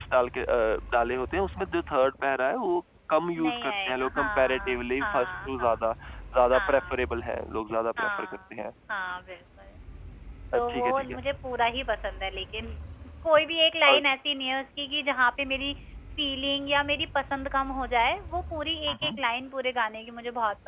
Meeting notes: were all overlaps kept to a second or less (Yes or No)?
No